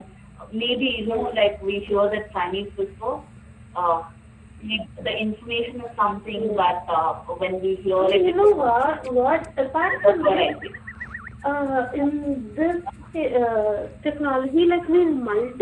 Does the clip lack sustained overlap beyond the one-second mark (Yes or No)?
No